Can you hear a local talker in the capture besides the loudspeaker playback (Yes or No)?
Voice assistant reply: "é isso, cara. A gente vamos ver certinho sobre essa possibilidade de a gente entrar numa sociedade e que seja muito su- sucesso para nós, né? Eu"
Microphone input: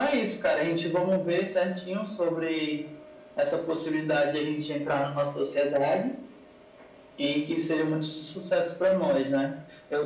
No